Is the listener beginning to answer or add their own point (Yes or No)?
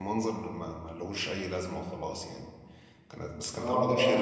Yes